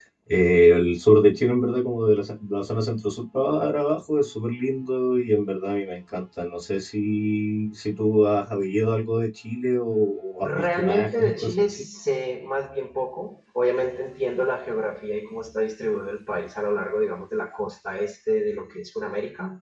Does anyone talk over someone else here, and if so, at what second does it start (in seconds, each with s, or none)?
10.4 s